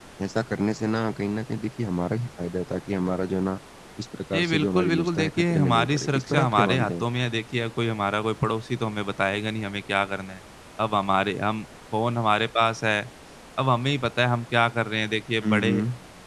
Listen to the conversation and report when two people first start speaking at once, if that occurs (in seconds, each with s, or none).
4.3 s